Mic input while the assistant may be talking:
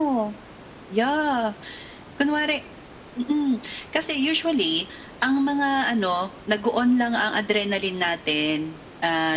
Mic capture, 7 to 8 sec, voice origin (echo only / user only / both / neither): echo only